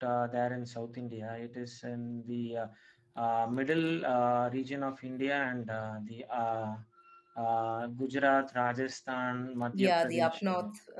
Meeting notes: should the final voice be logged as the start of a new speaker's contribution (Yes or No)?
Yes